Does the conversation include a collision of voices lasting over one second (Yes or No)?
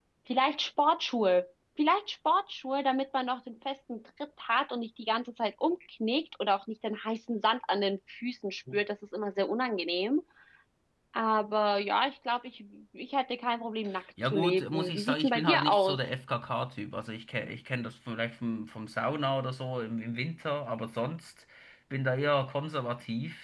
Yes